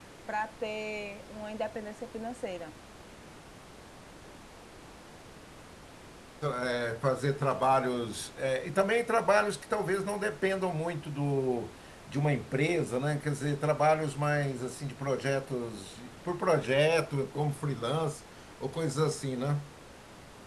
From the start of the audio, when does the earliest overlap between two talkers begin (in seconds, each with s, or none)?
none